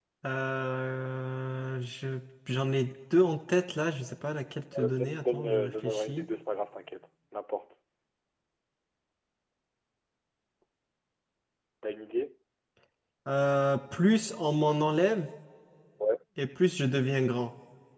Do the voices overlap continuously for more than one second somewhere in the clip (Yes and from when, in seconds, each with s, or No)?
Yes, from 4.7 s